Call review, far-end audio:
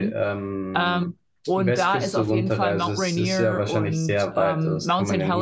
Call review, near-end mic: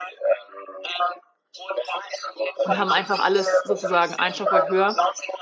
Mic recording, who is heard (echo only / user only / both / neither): both